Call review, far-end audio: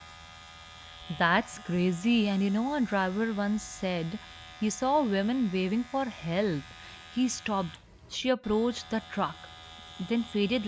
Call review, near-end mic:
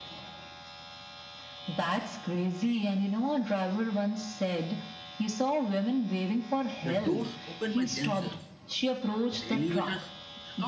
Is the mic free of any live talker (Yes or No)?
No